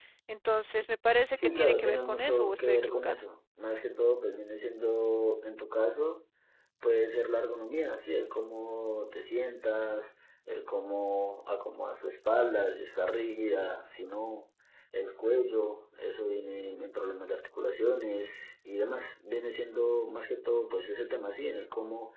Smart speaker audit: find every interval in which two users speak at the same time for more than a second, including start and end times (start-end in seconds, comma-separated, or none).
1.4-3.2